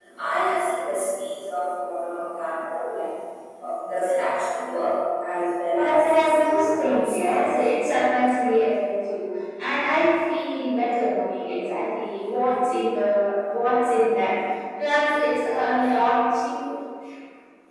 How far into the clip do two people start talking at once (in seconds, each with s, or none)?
5.7 s